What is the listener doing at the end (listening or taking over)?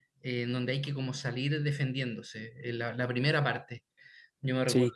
taking over